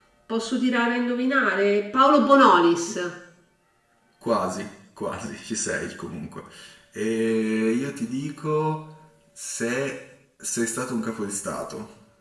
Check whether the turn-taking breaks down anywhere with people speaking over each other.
No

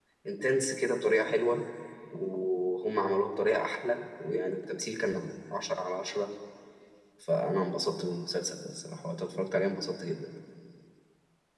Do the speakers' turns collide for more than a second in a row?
No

